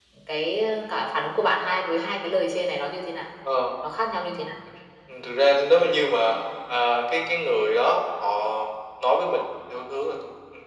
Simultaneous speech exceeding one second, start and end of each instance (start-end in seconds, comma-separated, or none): none